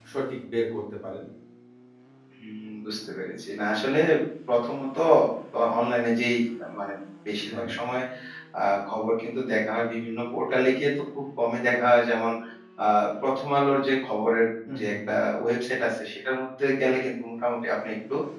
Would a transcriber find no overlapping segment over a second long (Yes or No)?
Yes